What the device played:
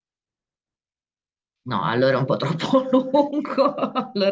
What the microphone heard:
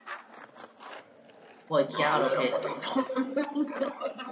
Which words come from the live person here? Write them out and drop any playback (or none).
Poi è chiaro che